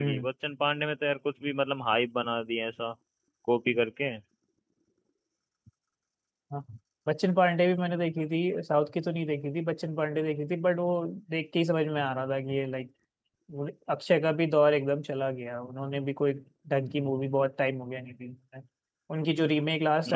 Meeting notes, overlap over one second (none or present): none